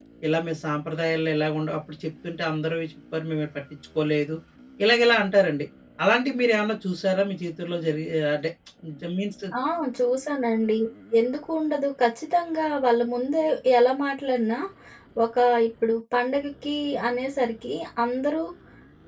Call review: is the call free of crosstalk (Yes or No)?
Yes